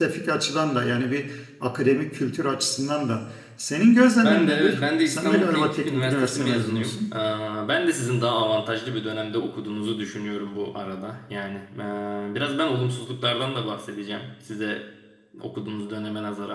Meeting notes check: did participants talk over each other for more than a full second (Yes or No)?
Yes